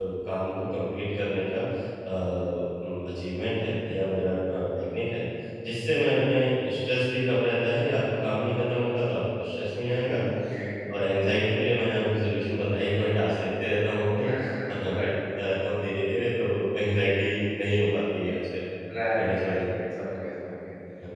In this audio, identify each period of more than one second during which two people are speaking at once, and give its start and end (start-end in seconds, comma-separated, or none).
none